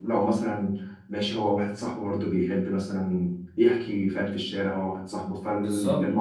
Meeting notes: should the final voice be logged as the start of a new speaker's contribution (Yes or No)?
Yes